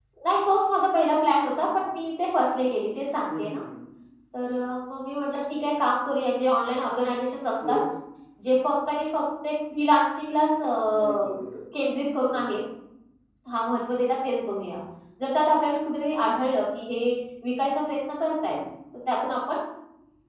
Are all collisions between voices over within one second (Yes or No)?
Yes